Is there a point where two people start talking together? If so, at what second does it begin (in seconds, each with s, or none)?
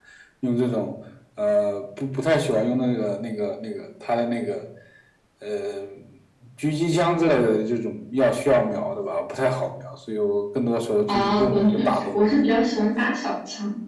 11.1 s